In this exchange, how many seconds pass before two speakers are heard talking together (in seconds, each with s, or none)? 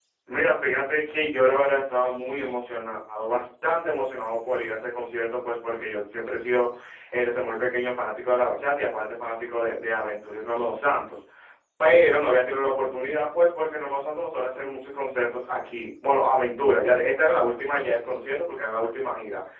none